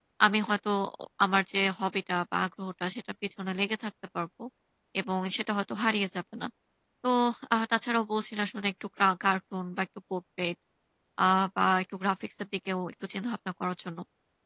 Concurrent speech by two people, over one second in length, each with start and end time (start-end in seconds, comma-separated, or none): none